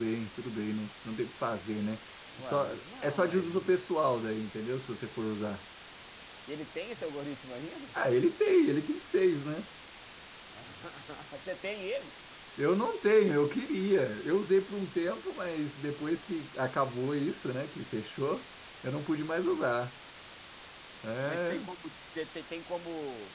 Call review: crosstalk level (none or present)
present